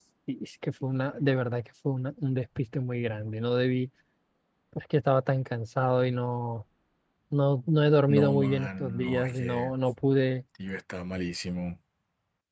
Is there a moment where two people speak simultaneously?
Yes, from 8.1 s

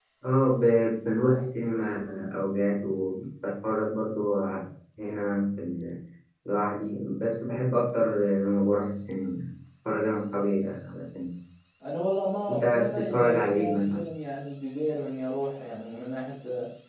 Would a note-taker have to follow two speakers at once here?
Yes, from 12.5 s

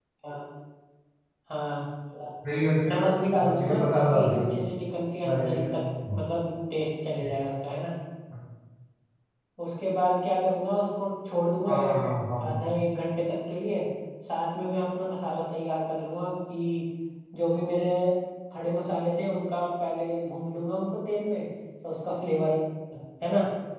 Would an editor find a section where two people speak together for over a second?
Yes, from 2.9 s

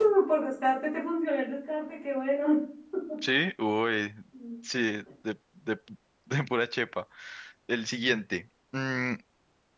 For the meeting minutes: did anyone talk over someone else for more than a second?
No

